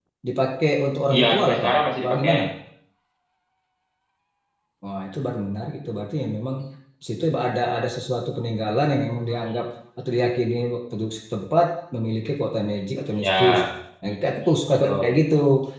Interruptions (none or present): present